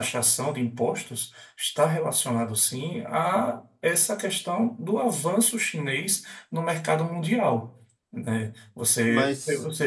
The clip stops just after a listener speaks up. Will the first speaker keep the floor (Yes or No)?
Yes